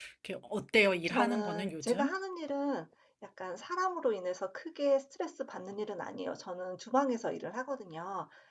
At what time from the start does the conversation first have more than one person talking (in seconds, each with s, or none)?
0.8 s